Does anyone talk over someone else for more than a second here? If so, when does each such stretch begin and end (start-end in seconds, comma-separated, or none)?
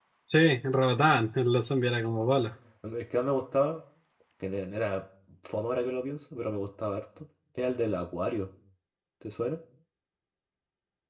none